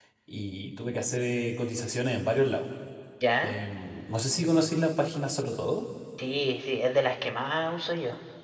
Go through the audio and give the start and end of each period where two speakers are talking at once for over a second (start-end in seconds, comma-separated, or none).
none